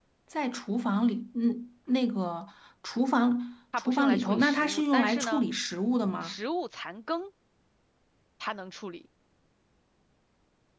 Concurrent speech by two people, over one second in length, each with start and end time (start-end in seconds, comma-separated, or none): 3.8-5.4